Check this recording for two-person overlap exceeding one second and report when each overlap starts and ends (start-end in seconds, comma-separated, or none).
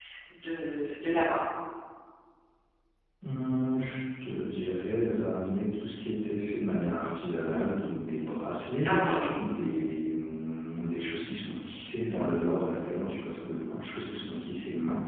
none